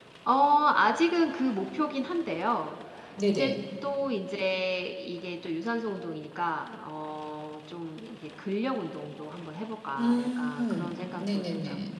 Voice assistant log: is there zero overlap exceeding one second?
No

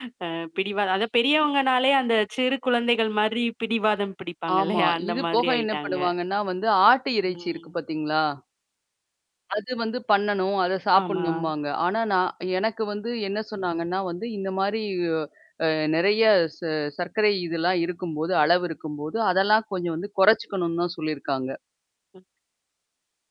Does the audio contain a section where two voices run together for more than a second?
Yes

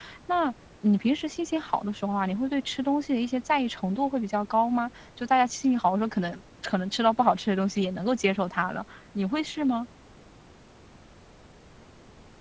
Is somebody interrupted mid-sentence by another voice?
No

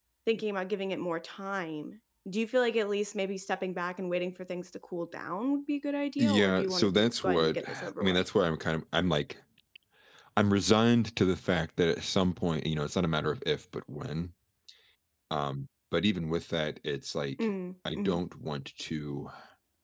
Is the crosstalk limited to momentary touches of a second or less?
No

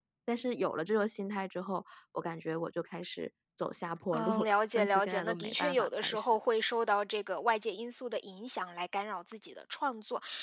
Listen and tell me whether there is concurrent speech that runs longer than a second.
Yes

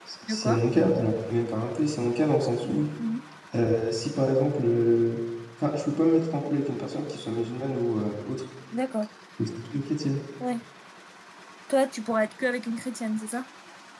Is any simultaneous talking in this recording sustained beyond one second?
No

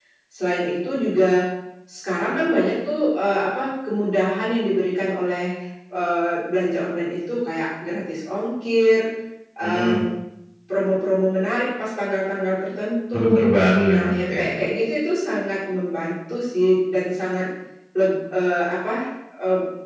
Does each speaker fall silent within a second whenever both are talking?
Yes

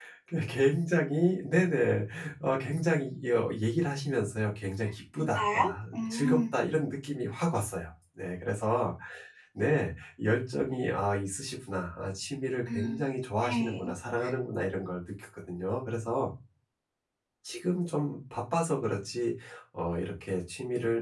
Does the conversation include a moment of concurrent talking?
Yes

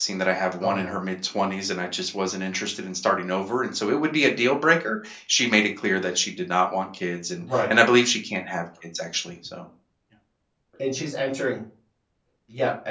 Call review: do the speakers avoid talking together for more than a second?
Yes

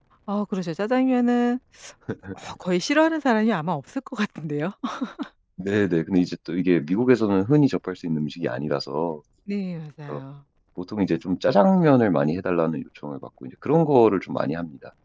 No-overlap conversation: Yes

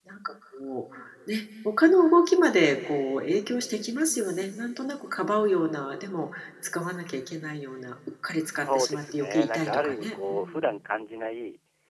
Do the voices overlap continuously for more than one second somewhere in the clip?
Yes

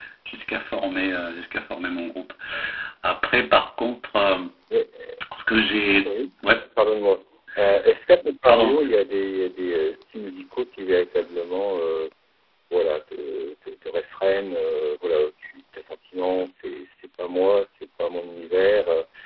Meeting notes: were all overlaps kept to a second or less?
Yes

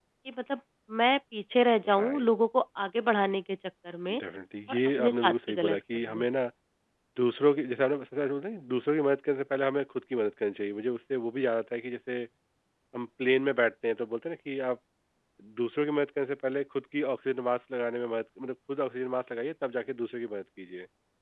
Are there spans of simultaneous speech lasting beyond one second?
Yes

